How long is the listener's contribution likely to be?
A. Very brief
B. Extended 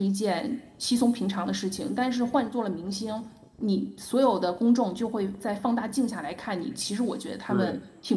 B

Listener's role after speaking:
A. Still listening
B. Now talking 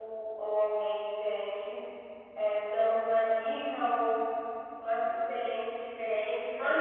B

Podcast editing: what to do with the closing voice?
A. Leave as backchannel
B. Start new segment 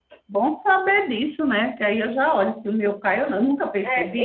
B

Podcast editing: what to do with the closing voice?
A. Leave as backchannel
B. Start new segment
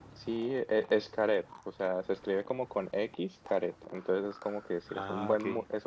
A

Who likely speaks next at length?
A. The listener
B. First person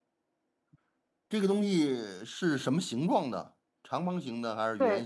A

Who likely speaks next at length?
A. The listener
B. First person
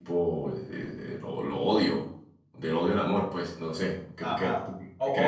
A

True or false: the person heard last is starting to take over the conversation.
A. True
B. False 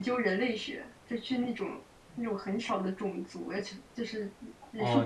B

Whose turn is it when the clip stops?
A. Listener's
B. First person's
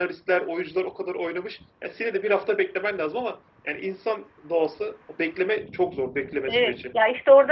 A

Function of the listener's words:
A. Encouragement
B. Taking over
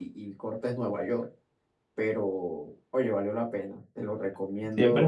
B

